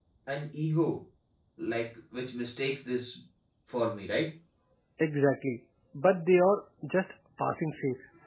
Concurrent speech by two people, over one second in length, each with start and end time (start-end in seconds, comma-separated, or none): none